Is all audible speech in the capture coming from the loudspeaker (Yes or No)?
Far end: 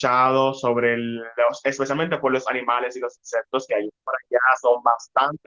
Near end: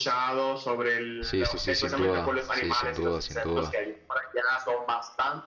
No